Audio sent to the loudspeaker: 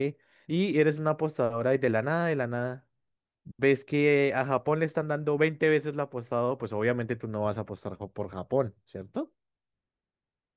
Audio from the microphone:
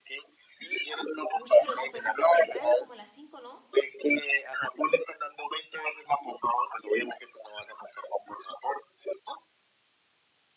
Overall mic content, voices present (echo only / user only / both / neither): both